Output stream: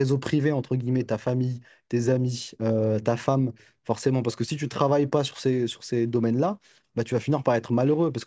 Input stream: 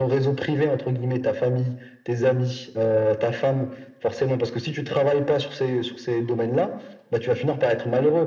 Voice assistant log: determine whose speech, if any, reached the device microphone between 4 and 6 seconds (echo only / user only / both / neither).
echo only